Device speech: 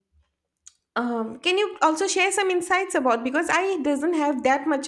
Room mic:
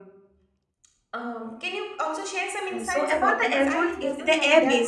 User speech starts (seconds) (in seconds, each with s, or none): 2.7 s